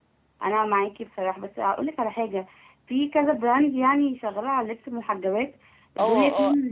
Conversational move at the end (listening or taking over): taking over